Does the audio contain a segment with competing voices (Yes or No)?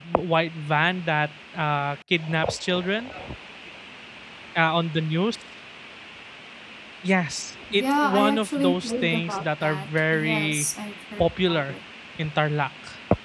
Yes